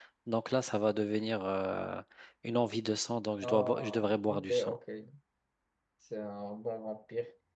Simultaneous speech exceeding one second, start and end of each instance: 3.4-4.8

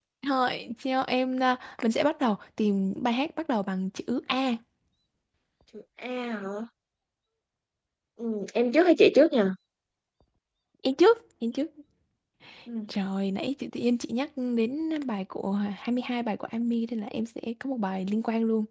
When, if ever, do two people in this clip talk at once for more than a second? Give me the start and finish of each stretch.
none

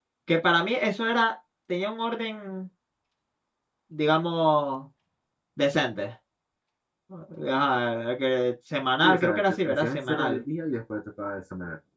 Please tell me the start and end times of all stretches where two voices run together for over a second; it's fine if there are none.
9.0-10.4

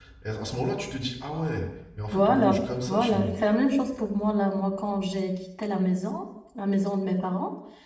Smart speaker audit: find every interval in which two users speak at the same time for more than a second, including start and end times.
2.1-3.3

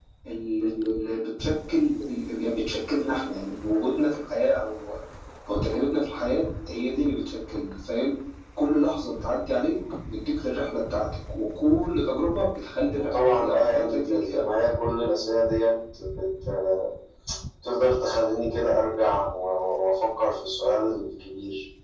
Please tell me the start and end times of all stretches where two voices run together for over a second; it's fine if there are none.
12.9-14.6

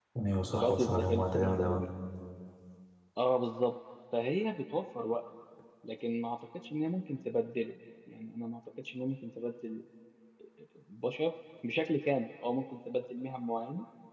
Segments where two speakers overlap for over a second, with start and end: 0.5-1.8

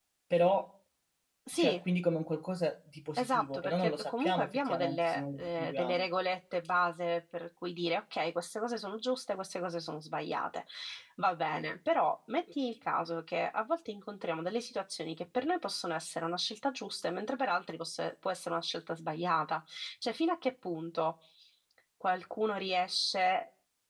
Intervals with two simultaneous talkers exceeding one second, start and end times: 3.2-6.1

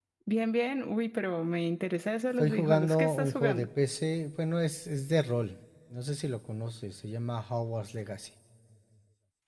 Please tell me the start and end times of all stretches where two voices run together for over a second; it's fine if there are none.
2.4-3.7

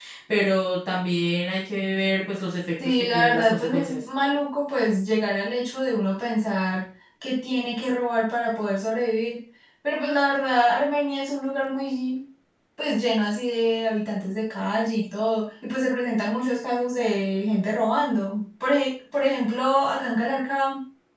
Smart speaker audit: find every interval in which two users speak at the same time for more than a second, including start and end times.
2.8-4.0

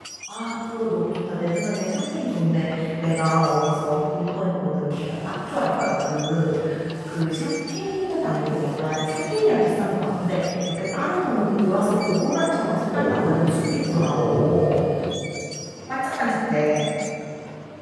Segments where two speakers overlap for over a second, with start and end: 12.9-14.8

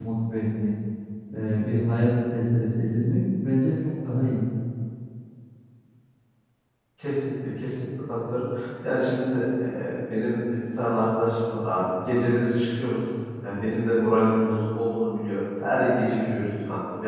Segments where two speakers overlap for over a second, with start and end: none

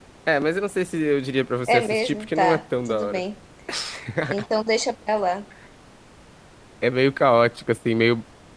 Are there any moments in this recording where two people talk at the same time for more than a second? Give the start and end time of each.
1.7-3.2

